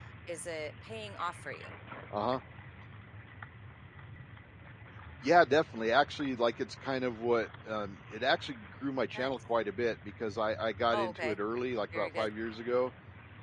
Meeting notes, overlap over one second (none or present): none